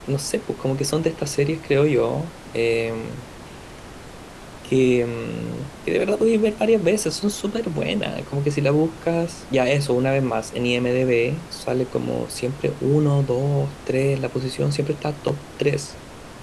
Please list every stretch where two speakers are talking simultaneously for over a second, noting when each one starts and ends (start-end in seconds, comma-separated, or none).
none